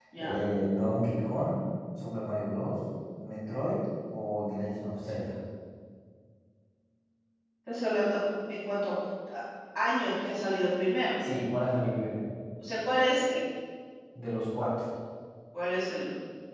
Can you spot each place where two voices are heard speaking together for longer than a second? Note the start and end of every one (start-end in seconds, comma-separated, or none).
none